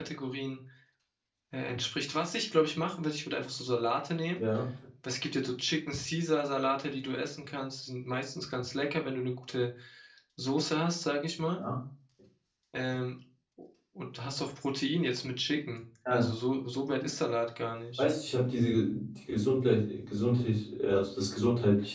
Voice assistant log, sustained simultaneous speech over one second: none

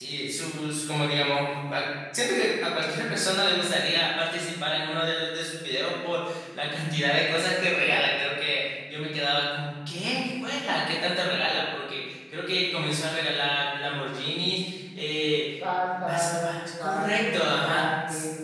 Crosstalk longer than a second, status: present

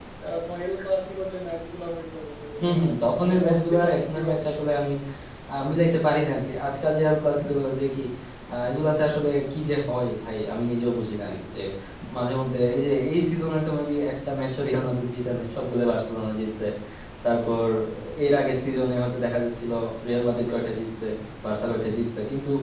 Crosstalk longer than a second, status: present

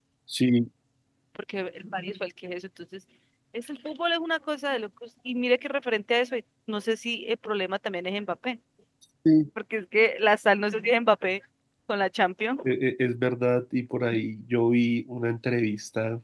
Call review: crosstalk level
none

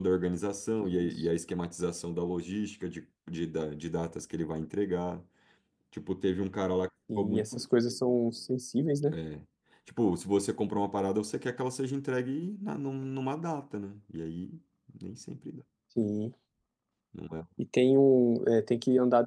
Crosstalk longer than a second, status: none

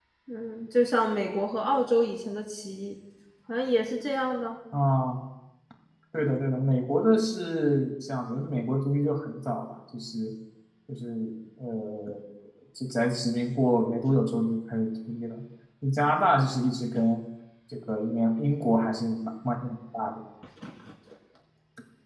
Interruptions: none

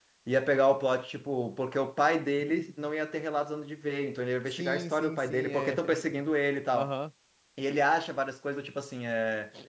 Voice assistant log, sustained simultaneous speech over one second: present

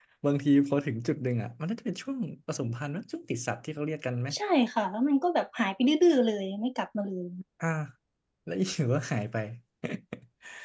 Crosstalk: none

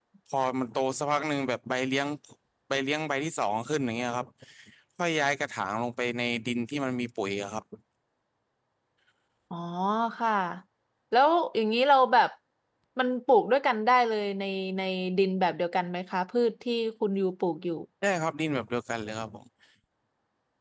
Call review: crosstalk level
none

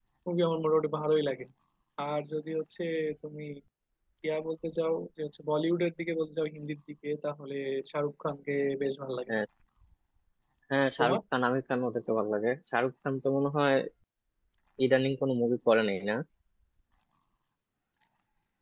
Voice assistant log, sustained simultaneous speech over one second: none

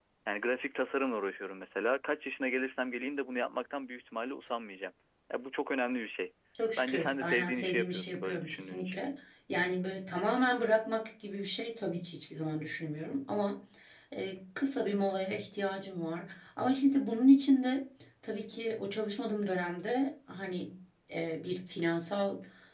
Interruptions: present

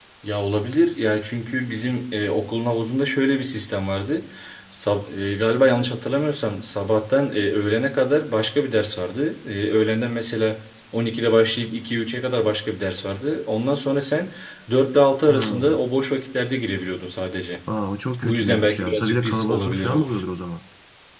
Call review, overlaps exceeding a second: present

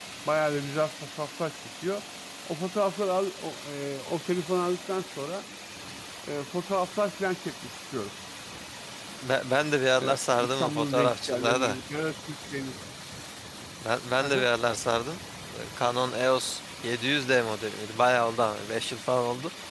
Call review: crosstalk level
present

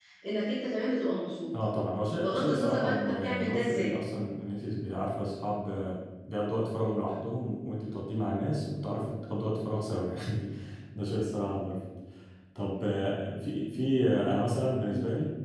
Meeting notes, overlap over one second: present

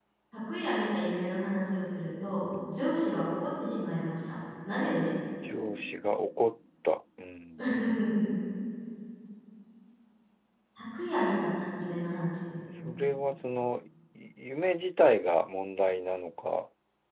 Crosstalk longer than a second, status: none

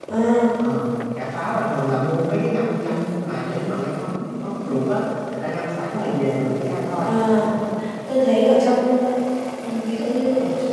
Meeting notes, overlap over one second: none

